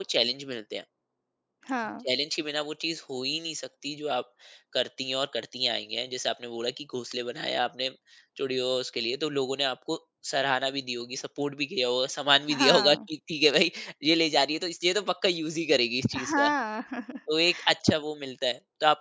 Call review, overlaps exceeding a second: none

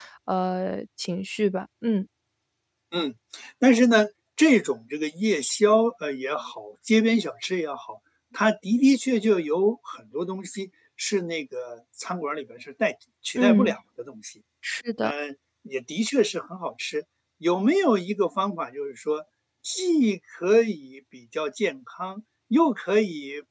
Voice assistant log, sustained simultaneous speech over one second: none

